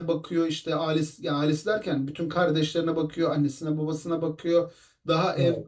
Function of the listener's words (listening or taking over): listening